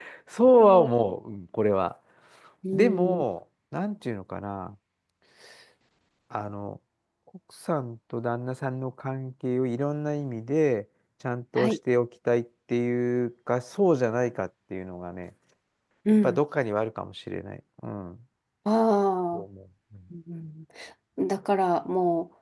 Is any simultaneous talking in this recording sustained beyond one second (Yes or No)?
No